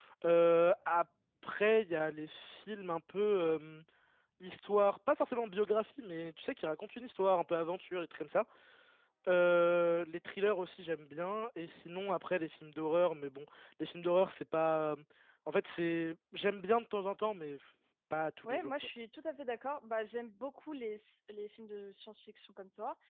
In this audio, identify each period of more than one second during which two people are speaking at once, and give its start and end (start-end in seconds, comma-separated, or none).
none